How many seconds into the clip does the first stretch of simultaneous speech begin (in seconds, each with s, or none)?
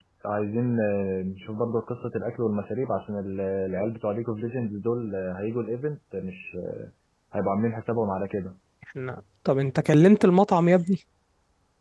none